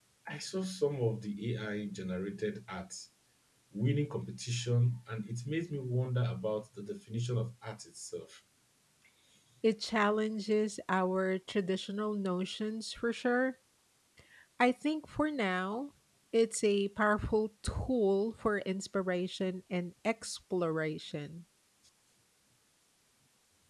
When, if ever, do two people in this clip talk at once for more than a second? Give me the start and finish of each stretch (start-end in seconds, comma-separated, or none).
none